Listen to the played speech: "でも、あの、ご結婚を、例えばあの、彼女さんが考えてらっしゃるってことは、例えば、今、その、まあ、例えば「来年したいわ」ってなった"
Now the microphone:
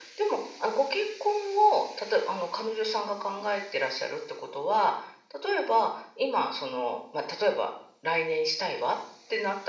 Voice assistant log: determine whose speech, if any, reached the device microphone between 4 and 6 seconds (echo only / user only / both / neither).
echo only